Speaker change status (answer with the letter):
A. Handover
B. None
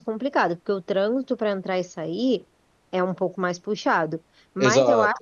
B